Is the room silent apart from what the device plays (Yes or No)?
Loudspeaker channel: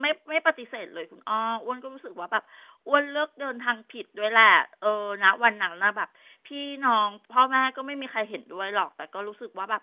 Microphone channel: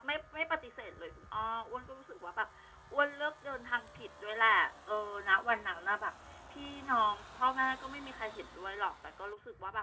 Yes